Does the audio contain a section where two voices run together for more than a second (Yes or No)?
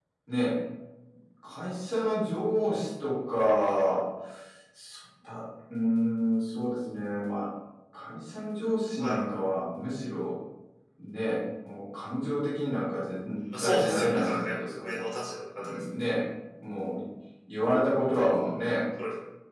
Yes